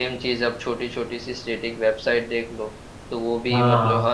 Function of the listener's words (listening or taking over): listening